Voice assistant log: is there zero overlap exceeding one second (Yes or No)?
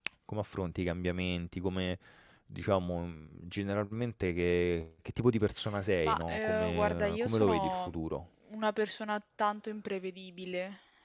No